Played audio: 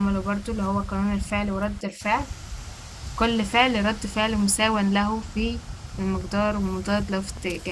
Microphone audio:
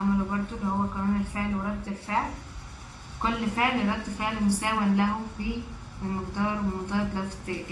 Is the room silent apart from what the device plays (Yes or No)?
Yes